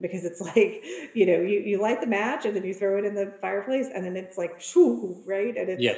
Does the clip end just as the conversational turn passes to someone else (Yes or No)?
Yes